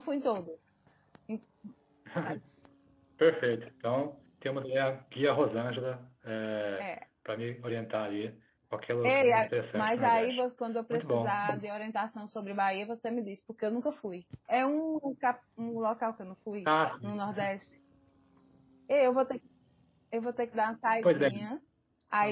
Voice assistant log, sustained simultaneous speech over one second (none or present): present